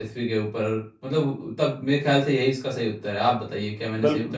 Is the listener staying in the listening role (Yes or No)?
No